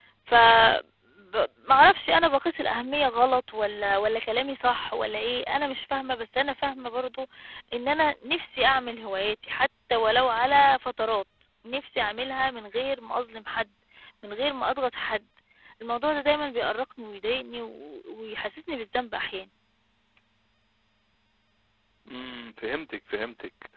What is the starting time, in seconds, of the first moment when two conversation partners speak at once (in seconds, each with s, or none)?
none